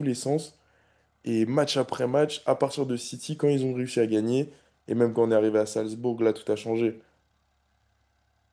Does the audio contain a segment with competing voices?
No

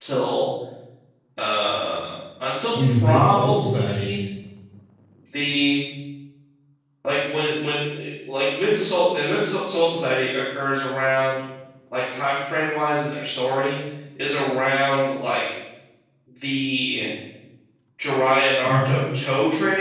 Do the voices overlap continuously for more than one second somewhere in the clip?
Yes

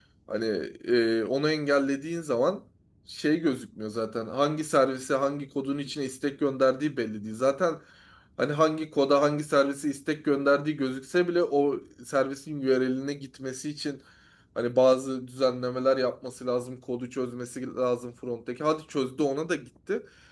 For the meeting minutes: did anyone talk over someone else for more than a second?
No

